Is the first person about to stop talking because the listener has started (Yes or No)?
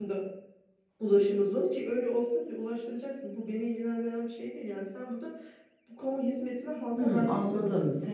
Yes